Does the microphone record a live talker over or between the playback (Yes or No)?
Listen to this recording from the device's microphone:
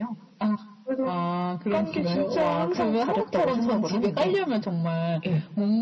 No